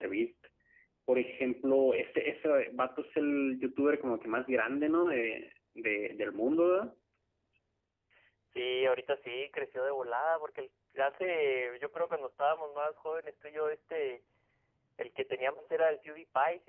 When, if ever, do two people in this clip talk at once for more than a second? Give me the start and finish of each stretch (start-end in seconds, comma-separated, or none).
none